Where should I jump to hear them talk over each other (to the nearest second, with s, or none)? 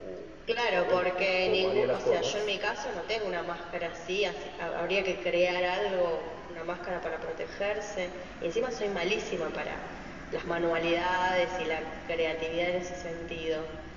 1 s